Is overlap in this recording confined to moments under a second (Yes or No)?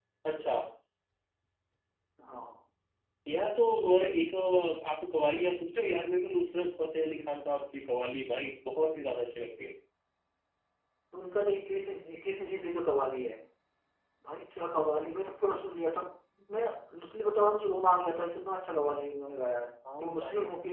Yes